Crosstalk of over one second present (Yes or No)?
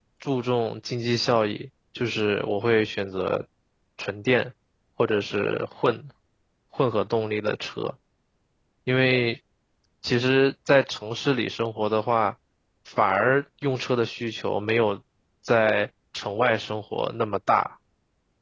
No